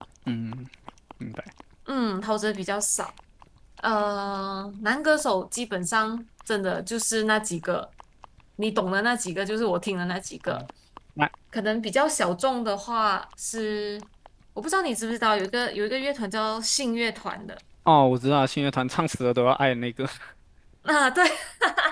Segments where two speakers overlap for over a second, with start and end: none

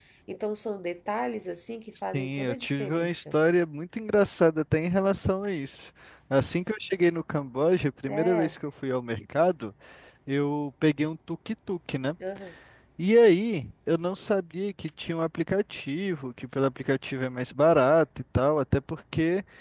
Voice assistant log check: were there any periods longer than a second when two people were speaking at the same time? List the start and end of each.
2.1-3.4

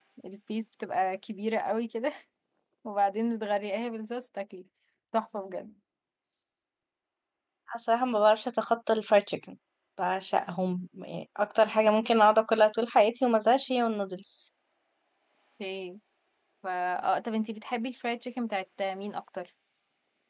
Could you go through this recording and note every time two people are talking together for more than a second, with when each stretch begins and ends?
none

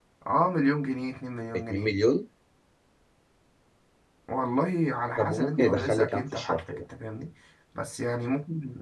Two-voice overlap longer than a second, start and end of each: 5.2-6.8

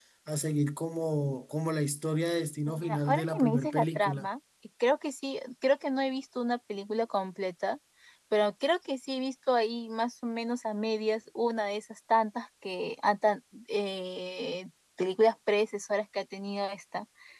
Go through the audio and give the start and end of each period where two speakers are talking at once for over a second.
2.8-4.3

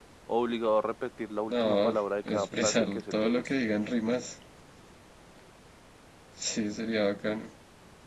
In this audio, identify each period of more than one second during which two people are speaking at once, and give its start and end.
1.5-3.5

